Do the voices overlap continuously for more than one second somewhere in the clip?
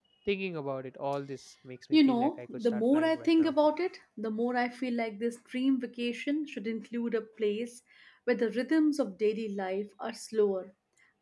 Yes, from 1.9 s

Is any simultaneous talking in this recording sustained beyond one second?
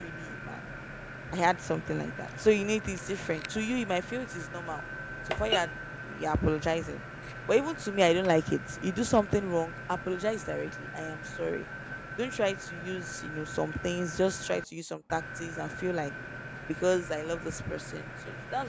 No

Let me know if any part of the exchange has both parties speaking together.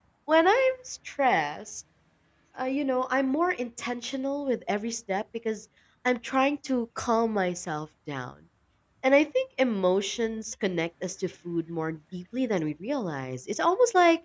No

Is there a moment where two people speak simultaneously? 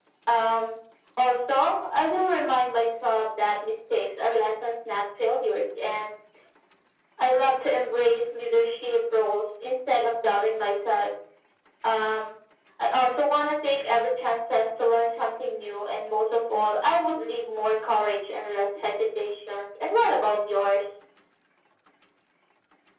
No

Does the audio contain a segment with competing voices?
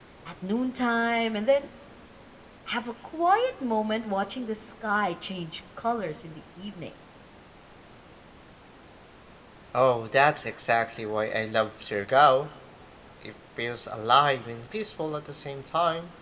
No

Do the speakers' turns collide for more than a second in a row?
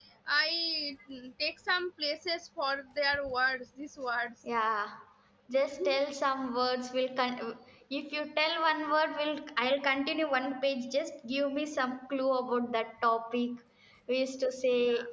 No

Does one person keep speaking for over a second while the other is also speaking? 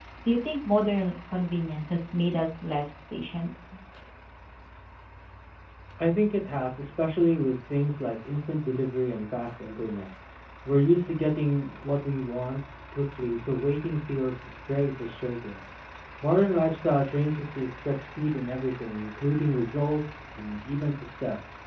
No

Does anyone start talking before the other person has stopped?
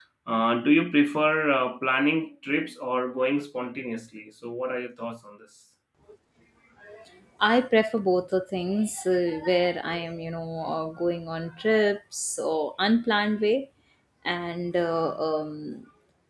No

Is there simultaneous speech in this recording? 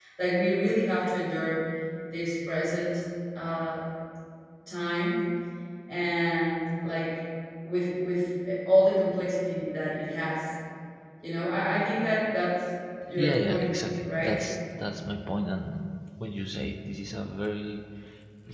Yes, from 13.2 s

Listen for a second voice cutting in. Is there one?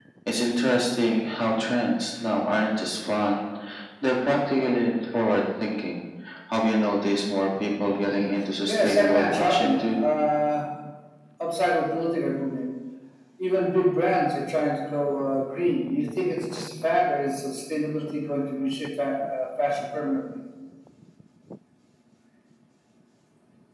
Yes, from 8.7 s

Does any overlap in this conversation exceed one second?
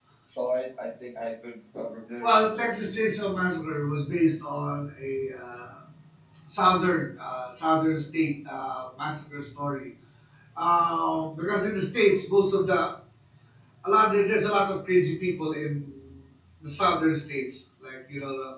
No

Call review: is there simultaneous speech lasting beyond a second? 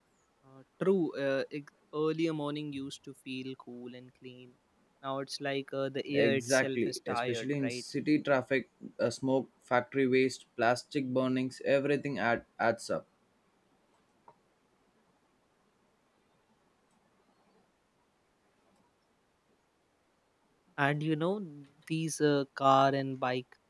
Yes, from 6.1 s

